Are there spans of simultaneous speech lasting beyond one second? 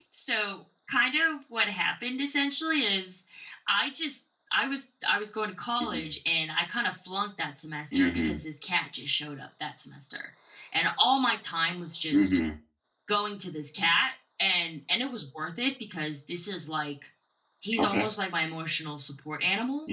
No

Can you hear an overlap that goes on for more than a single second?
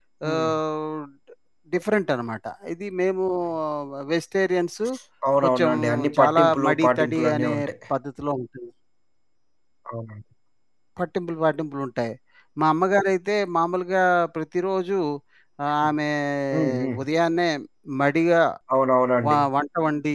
Yes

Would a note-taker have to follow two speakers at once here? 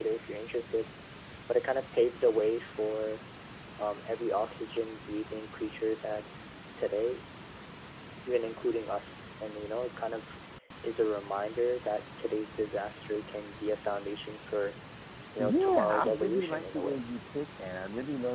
Yes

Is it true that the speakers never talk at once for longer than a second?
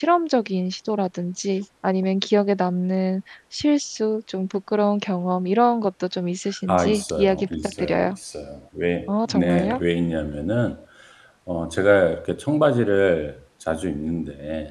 No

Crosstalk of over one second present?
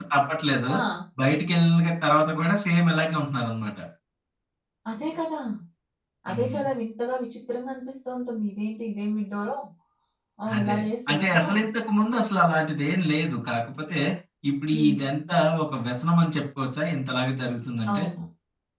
No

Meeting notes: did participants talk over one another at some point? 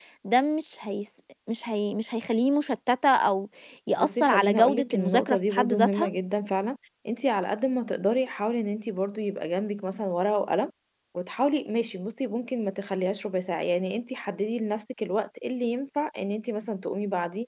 Yes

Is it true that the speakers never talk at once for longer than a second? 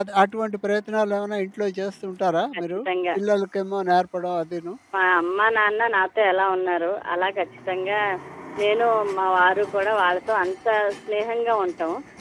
Yes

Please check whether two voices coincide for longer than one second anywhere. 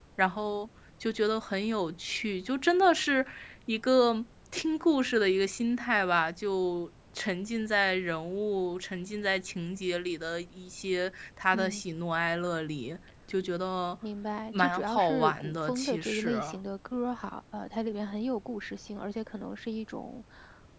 Yes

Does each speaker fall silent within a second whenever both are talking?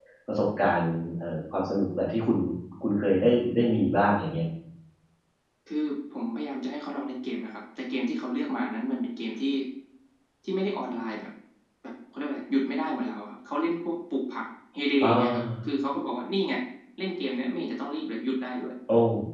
Yes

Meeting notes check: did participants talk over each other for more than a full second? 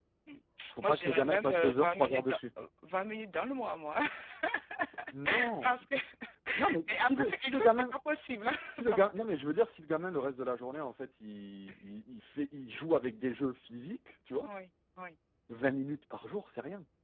Yes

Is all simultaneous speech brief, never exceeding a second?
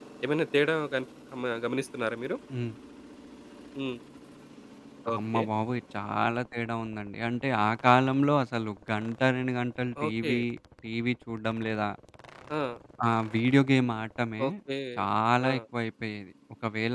Yes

